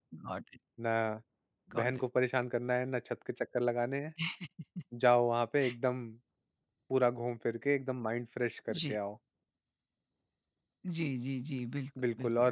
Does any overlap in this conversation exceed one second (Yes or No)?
No